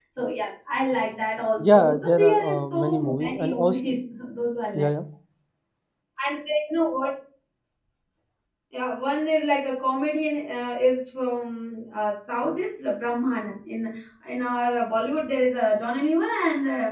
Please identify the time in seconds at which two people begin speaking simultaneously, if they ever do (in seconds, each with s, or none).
1.6 s